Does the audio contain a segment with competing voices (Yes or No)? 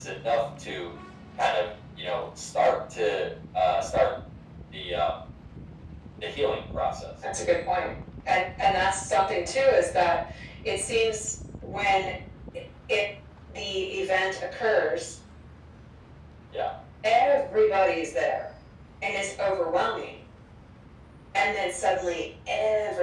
No